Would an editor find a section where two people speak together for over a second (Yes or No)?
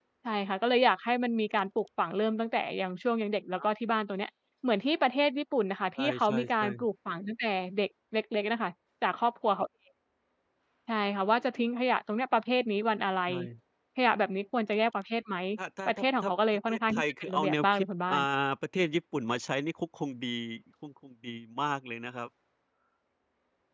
Yes